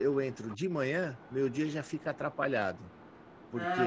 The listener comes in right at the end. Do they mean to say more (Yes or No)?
Yes